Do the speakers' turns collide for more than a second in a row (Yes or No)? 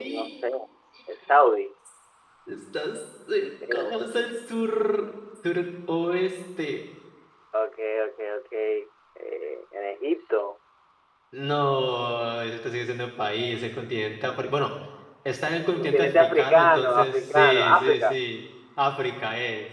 Yes